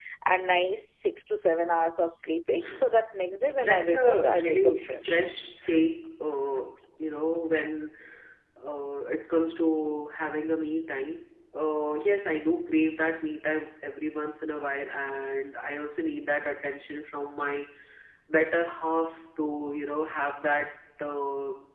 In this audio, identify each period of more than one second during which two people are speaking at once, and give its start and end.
3.6-5.1

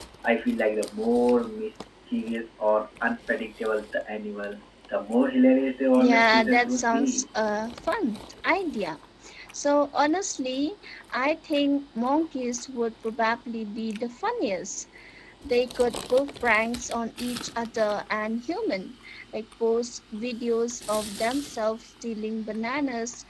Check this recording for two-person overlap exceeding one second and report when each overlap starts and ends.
6.0-7.2

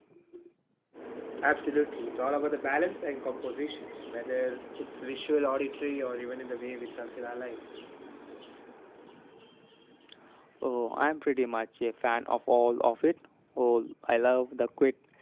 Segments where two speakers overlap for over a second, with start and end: none

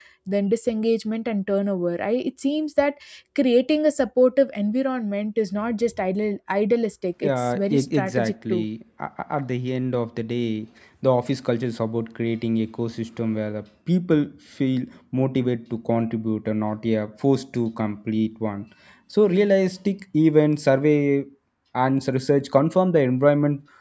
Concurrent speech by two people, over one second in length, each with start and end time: 7.2-8.6

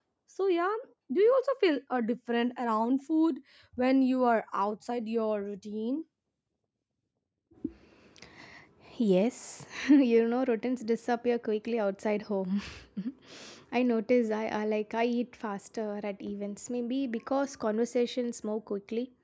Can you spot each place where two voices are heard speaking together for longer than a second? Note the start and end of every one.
none

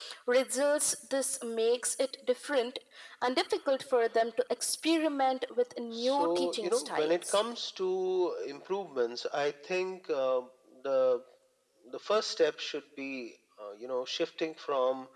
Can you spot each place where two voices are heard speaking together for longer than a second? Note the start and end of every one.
6.0-7.4

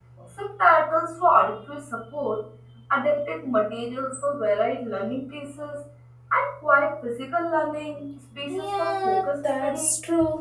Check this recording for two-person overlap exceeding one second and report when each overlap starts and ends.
8.5-9.9

